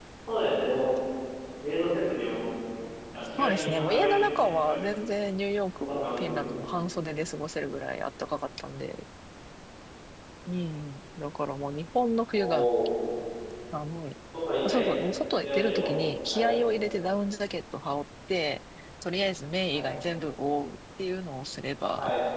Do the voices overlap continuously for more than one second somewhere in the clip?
Yes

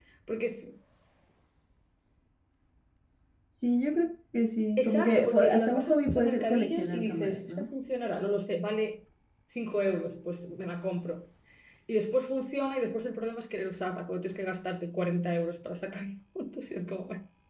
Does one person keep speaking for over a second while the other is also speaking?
Yes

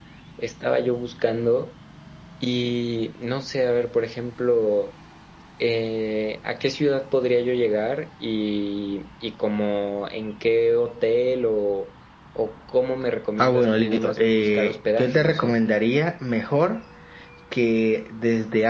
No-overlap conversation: No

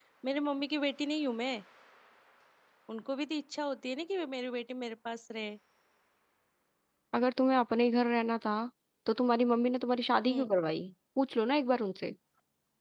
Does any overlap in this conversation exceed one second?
No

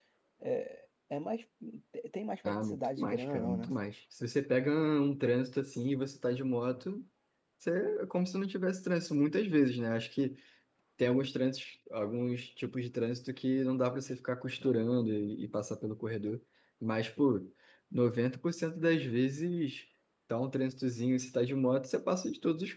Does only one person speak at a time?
No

